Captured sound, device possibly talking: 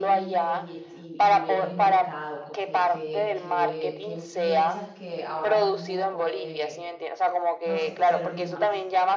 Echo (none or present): present